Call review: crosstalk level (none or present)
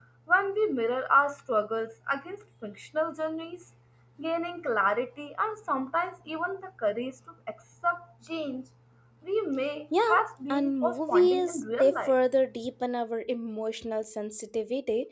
present